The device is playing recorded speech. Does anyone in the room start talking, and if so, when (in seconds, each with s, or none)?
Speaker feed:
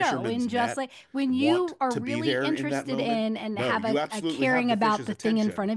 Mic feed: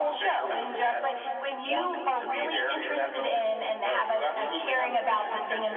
none